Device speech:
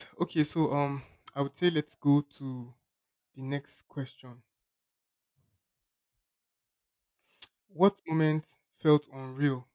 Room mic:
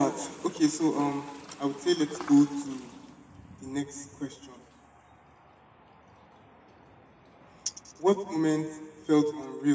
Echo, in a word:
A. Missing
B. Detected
B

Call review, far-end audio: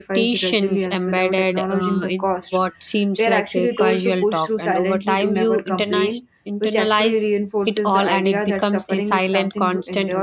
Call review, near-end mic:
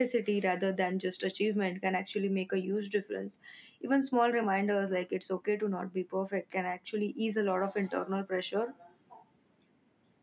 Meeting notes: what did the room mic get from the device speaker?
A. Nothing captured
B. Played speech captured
A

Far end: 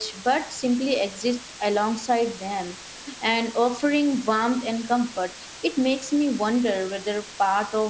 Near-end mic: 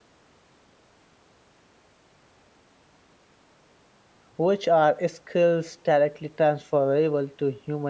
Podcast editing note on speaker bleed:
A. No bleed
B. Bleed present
A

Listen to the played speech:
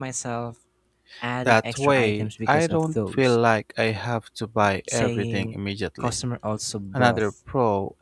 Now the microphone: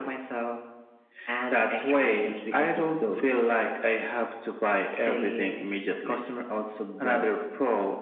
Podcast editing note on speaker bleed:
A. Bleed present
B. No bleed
A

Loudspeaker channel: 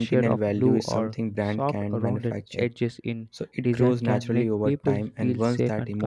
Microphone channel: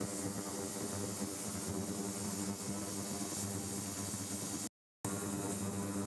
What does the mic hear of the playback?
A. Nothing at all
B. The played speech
A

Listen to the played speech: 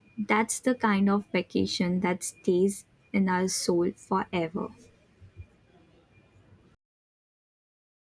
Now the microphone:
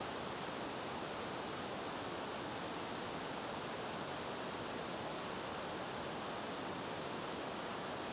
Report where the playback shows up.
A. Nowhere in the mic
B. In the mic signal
A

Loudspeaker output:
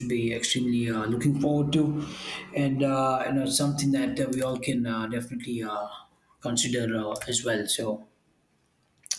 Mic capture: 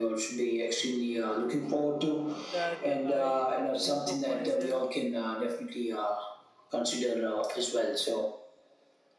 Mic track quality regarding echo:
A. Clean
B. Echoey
B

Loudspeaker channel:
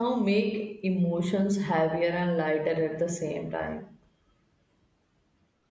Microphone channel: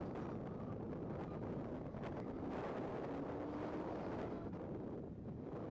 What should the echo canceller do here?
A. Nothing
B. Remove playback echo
A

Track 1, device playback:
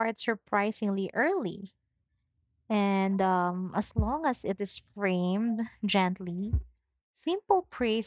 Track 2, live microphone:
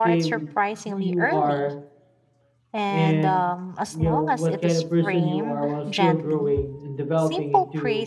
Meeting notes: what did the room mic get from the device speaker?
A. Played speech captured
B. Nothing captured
A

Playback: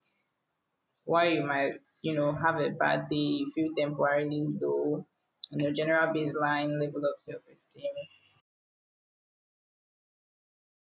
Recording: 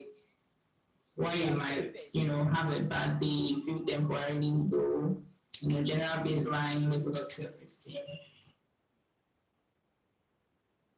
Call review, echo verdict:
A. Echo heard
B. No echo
A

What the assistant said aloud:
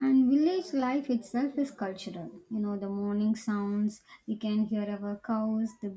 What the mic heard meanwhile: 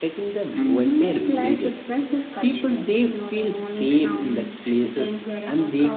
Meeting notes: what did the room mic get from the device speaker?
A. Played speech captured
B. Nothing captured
A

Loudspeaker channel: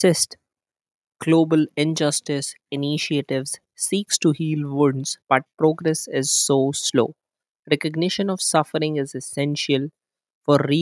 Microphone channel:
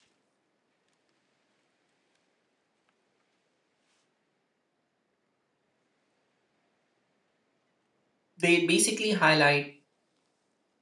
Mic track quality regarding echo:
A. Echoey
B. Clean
B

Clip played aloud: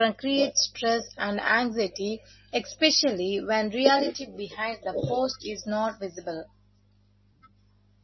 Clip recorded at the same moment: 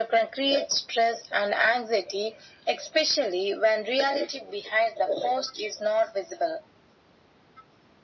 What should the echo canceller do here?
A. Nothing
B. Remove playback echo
B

